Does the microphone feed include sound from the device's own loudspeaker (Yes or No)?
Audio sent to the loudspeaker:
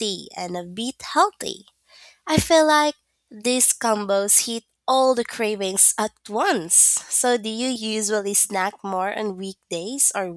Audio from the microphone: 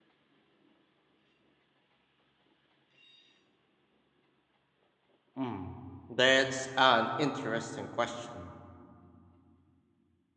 No